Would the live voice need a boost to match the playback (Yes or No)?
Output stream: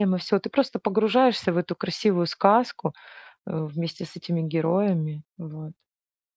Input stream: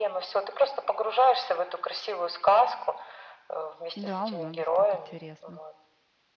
Yes